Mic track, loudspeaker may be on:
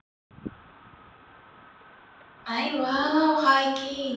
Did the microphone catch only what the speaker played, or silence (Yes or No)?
No